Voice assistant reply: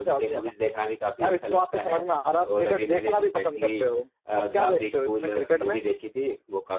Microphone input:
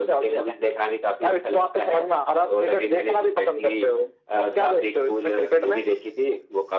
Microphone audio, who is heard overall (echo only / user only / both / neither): echo only